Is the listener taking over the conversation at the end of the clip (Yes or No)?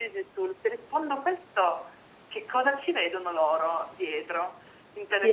Yes